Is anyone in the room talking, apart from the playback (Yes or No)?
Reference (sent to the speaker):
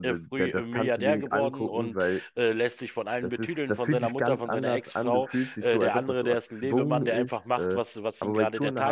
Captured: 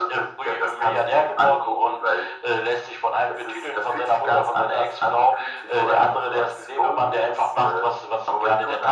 No